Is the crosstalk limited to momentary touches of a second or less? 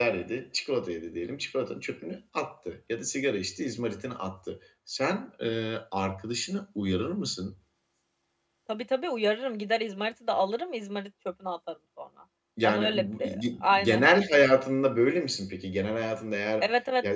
No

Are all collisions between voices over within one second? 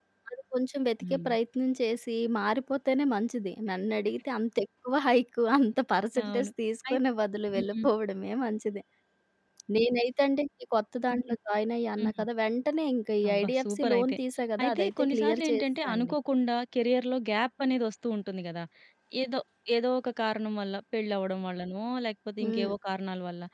No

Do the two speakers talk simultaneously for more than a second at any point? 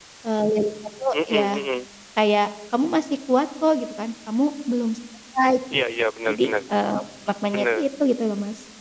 No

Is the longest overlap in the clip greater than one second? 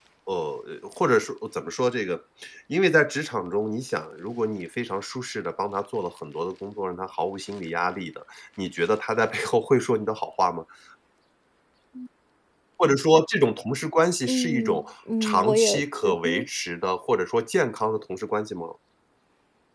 Yes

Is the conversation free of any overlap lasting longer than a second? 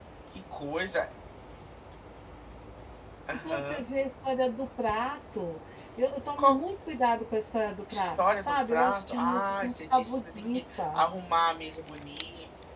No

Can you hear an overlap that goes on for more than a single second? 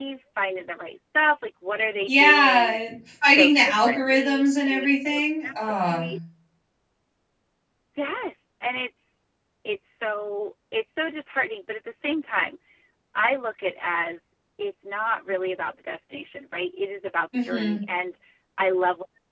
Yes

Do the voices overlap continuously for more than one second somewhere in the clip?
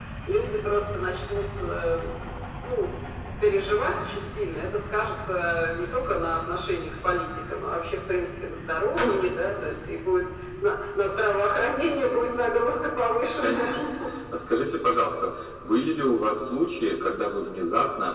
No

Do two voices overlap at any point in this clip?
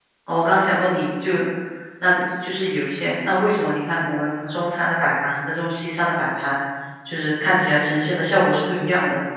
No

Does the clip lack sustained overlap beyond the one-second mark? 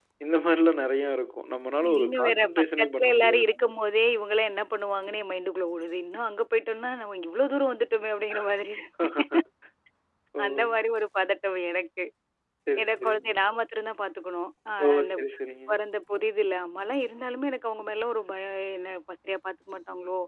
No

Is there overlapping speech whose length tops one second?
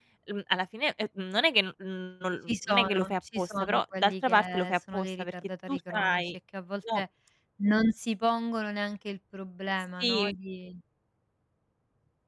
Yes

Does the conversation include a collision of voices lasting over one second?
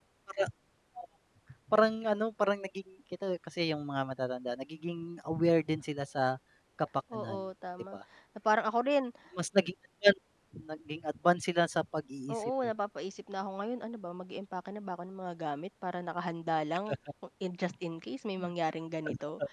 No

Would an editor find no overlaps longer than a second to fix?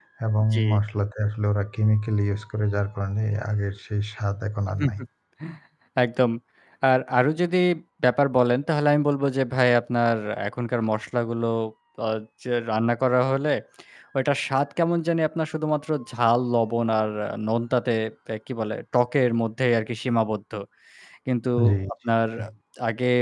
Yes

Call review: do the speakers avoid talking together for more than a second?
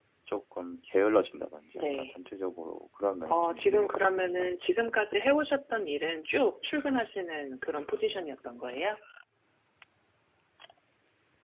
No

